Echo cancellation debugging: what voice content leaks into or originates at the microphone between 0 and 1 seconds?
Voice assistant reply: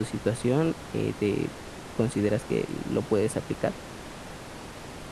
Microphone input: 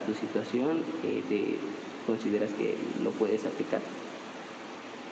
echo only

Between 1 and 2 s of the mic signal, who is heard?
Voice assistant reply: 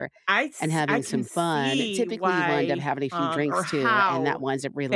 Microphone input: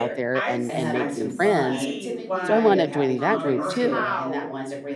both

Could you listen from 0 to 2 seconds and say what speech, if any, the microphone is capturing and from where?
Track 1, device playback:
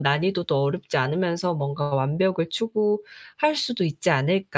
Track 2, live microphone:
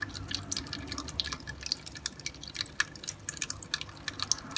neither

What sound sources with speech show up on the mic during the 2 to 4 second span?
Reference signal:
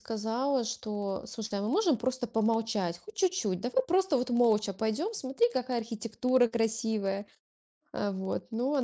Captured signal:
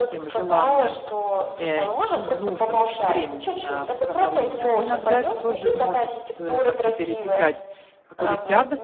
both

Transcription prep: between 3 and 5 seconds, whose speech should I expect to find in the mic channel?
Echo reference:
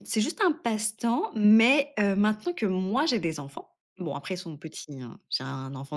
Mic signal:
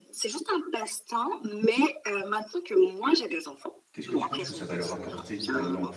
both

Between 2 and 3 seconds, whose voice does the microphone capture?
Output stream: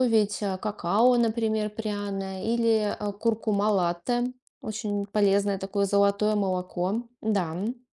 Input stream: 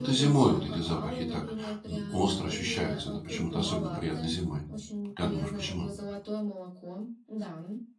both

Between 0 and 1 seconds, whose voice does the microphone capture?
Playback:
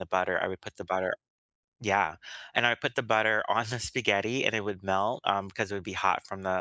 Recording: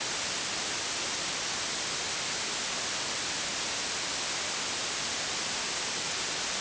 neither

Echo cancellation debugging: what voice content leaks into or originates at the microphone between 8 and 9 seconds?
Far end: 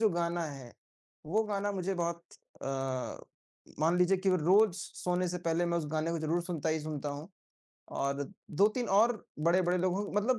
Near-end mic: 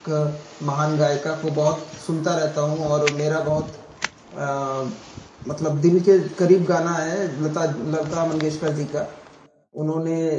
user only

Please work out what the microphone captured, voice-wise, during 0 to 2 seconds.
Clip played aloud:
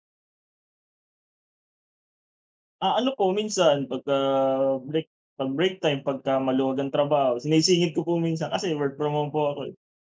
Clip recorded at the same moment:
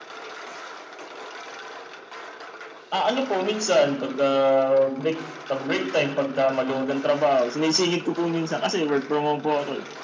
neither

